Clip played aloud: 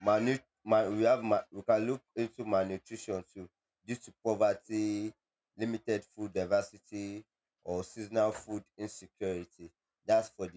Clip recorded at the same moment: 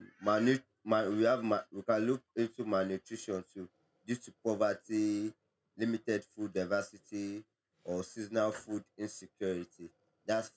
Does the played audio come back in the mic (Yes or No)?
Yes